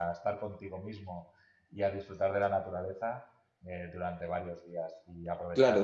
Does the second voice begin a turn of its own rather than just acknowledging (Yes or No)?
Yes